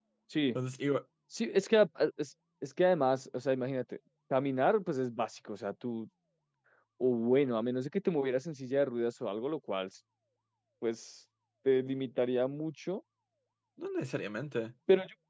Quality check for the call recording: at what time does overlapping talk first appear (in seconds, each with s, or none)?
none